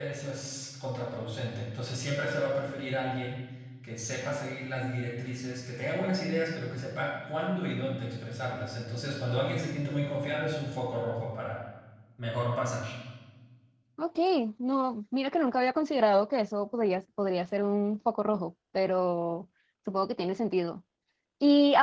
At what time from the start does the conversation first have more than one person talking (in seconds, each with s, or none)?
none